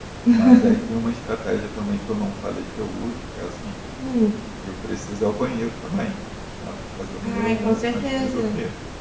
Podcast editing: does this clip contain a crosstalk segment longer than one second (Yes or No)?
Yes